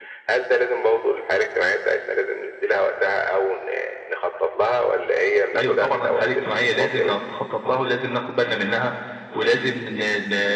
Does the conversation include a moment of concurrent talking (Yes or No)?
Yes